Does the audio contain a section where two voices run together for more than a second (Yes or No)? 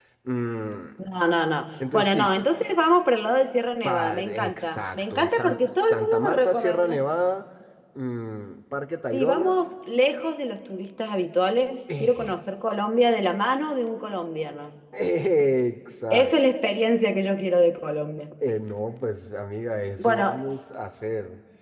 Yes